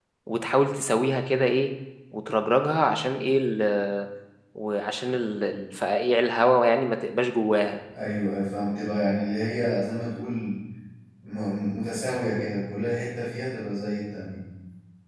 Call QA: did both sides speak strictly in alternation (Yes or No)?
Yes